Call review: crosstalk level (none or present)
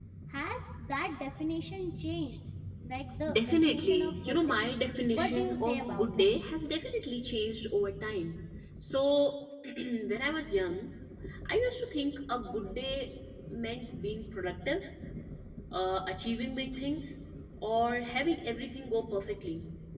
present